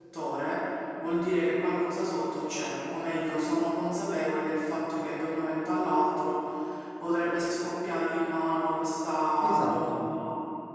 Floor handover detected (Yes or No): No